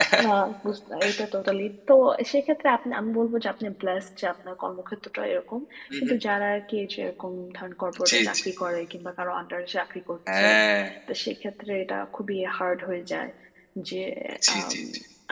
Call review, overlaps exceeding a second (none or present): none